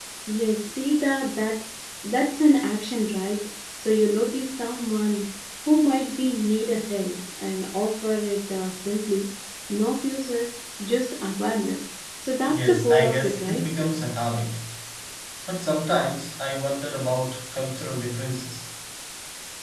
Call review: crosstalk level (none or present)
present